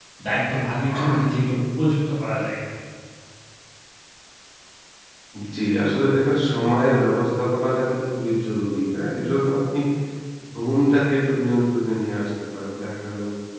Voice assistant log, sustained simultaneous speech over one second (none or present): none